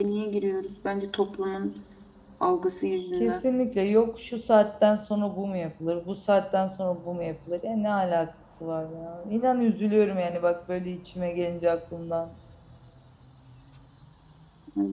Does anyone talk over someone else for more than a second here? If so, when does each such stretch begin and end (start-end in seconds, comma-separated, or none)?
none